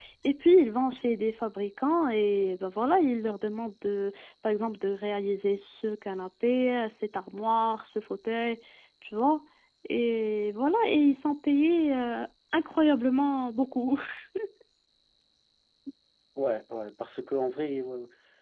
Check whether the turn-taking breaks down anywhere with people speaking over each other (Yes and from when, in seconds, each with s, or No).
No